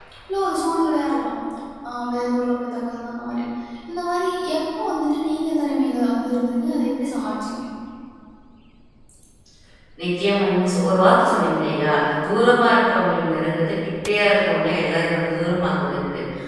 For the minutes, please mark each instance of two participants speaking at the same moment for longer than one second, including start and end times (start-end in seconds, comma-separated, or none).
none